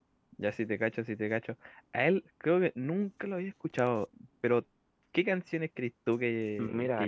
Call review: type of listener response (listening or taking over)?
listening